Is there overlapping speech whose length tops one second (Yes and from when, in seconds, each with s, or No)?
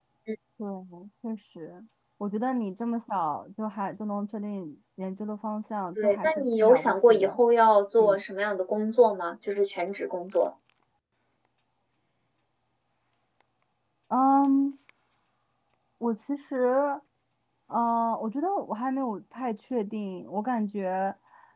Yes, from 6.0 s